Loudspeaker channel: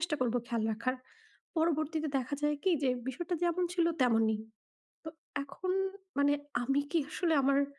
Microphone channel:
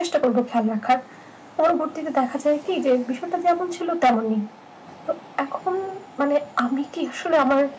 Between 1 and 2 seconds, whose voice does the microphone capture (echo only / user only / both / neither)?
echo only